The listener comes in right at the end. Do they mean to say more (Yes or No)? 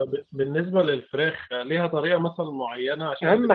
Yes